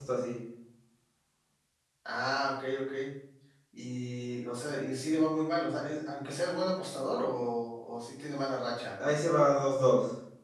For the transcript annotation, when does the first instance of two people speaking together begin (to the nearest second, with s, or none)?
none